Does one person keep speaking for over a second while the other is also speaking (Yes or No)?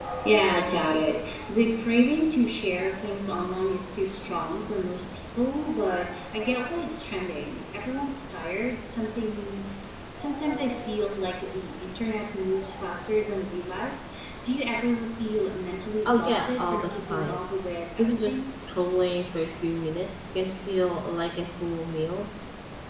Yes